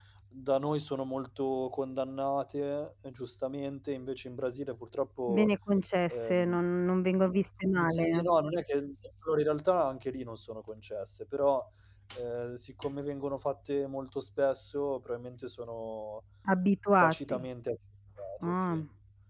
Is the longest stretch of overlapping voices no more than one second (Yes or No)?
Yes